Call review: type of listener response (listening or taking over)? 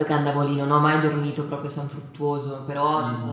listening